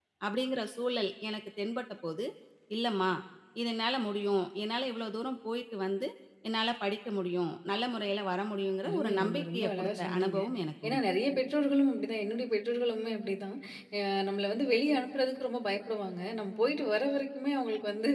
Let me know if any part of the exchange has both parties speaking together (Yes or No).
Yes